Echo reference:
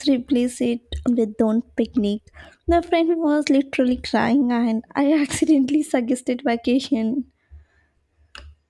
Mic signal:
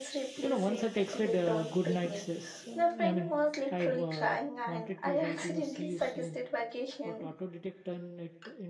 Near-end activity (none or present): present